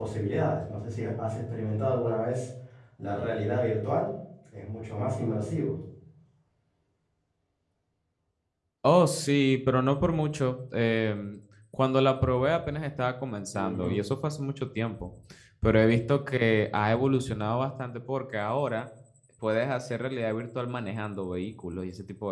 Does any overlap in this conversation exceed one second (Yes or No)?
No